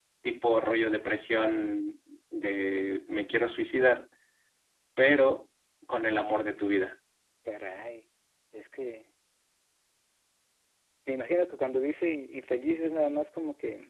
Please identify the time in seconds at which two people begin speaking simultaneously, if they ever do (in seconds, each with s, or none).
none